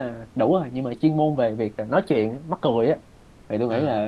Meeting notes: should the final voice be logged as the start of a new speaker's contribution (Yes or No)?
No